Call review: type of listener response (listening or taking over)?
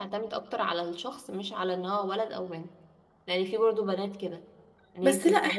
taking over